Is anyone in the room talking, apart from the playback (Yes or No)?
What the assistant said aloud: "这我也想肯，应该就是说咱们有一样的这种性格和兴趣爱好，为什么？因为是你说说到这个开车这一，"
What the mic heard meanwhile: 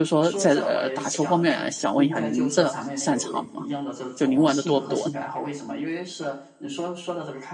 Yes